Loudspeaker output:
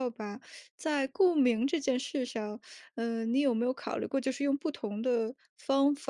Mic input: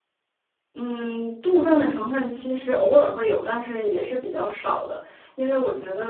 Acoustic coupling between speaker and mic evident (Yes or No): No